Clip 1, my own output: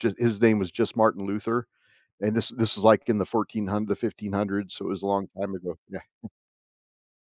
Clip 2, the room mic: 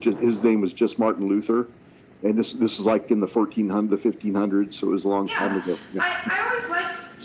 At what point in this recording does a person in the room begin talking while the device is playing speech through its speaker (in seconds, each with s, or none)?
5.3 s